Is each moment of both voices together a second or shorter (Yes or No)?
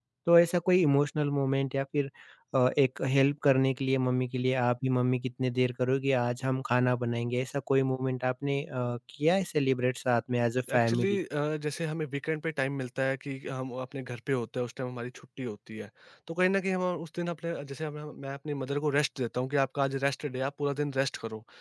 Yes